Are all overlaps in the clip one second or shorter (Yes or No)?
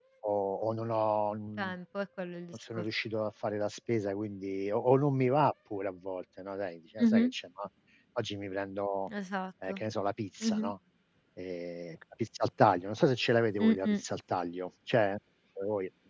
Yes